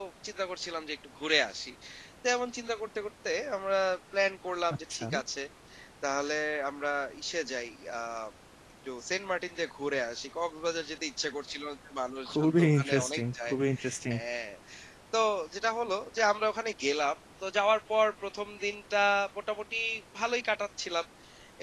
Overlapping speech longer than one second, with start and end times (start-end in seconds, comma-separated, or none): 12.3-13.6